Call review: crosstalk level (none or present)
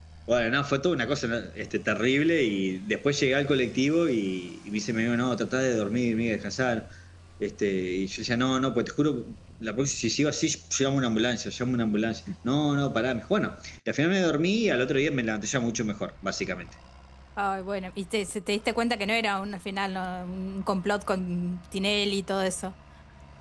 none